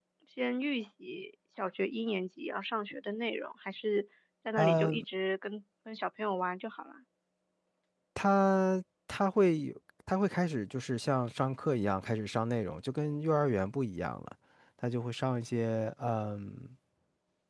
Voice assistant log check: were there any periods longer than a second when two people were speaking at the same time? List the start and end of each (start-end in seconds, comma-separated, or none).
none